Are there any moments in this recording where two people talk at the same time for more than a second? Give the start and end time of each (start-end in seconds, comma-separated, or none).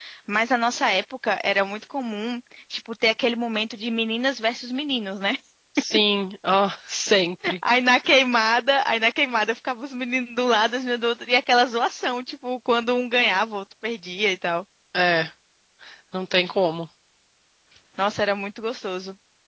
none